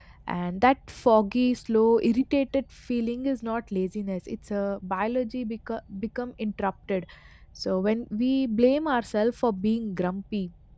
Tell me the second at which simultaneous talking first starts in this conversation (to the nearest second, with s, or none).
none